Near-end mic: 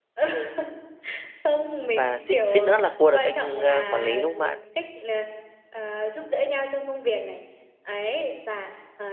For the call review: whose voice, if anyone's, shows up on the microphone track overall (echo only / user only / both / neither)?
both